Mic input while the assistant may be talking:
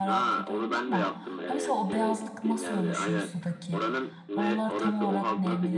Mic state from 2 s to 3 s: both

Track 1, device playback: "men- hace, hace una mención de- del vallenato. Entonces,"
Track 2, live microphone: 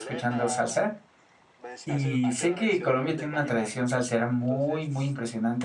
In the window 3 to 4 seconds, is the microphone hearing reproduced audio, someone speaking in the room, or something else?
both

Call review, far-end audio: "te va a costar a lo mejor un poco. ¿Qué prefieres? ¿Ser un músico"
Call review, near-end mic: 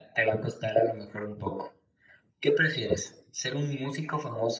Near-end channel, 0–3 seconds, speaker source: echo only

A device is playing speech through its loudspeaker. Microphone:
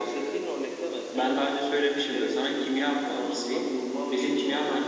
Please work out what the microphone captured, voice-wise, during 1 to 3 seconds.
echo only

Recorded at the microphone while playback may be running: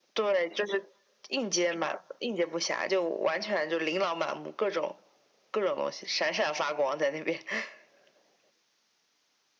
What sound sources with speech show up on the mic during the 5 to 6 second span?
echo only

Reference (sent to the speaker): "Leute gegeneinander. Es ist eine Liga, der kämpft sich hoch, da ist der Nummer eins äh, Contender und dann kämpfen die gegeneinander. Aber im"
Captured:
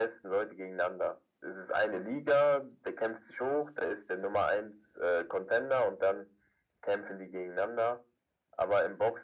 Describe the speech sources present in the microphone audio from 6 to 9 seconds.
echo only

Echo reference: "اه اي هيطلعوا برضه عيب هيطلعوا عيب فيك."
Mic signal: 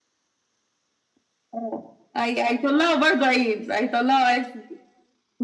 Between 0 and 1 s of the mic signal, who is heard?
neither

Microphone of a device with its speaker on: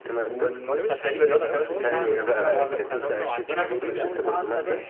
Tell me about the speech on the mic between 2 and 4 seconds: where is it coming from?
both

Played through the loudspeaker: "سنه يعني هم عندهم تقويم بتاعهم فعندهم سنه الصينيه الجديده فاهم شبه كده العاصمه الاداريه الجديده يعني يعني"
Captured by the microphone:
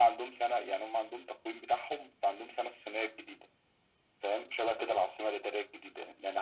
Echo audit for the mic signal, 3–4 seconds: echo only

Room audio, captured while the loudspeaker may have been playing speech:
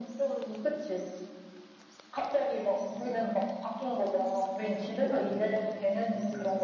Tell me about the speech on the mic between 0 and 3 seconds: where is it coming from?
echo only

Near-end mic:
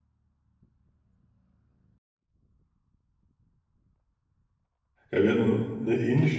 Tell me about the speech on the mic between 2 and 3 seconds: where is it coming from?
neither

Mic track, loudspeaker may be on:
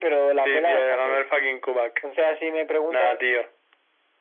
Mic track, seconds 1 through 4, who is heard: echo only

